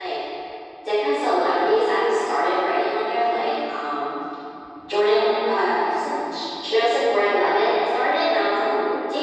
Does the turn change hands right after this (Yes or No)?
No